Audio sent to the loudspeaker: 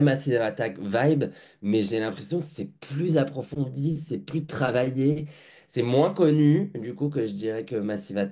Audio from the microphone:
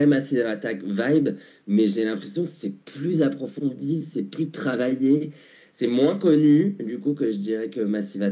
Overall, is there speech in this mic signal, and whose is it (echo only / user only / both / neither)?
echo only